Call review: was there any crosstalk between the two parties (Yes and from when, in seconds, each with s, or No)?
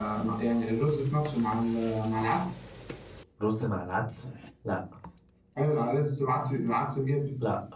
No